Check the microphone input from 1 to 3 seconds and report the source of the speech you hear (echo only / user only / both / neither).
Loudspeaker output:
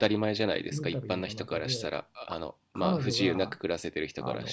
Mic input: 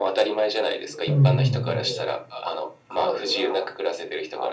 both